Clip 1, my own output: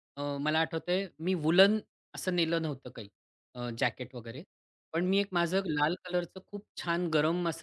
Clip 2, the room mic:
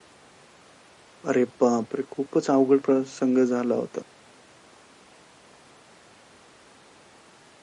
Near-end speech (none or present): present